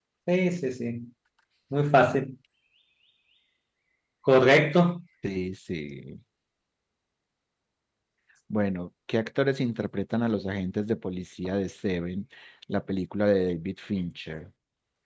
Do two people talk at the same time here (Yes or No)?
No